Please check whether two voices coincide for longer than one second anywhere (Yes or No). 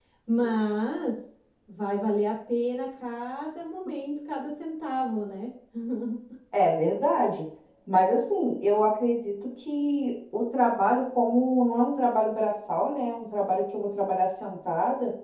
No